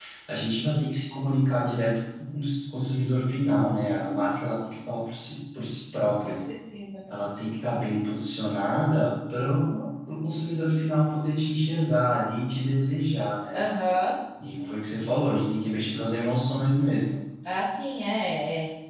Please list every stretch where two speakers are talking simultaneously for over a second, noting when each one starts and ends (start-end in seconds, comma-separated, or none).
none